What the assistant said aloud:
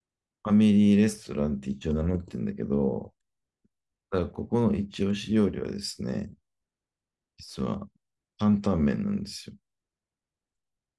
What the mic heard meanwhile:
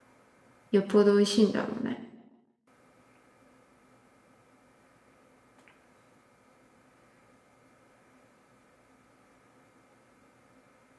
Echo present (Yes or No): No